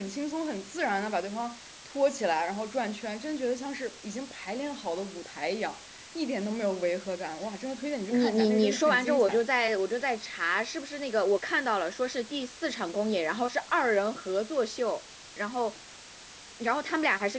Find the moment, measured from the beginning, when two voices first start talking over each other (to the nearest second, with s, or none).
8 s